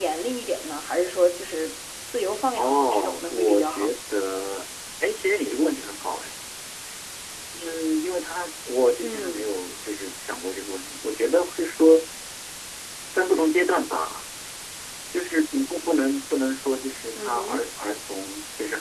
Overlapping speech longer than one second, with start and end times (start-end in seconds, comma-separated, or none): 2.6-3.9